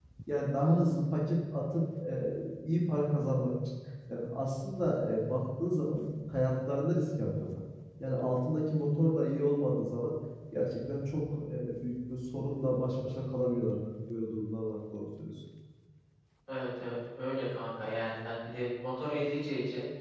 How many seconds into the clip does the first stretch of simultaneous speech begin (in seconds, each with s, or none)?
none